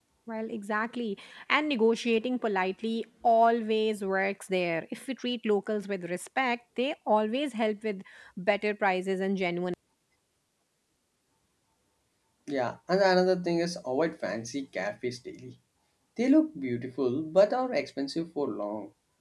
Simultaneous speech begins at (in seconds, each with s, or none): none